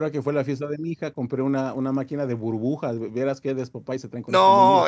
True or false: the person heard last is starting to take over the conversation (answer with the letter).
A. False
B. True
B